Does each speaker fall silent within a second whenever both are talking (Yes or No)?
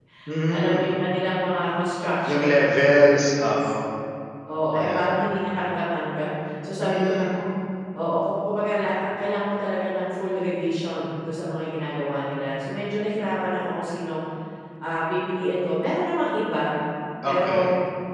No